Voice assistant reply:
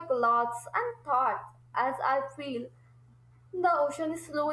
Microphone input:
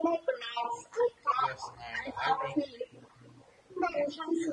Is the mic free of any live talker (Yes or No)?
No